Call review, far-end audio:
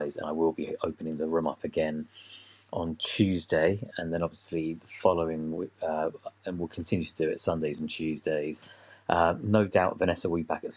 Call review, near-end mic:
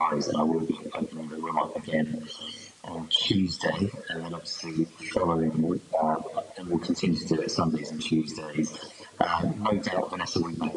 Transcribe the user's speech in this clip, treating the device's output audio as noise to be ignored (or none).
none